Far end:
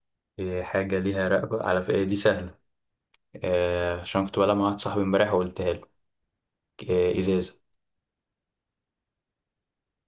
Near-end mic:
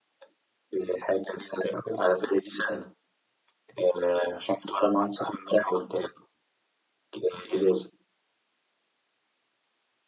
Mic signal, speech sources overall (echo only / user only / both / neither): echo only